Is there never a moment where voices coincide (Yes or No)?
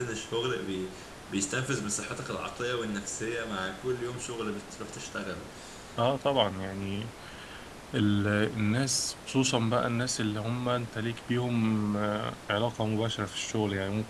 Yes